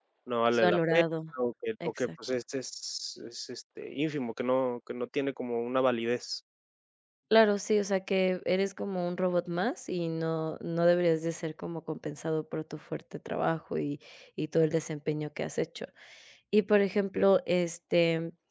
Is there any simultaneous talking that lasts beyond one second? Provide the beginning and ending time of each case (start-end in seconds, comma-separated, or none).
none